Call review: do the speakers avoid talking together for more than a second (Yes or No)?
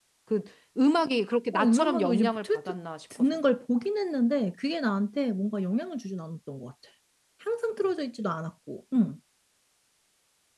No